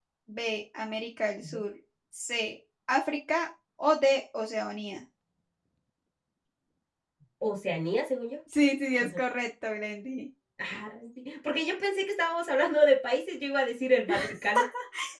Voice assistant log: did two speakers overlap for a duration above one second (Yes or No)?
No